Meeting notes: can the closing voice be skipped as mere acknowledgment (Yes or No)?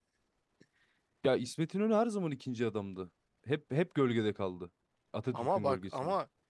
No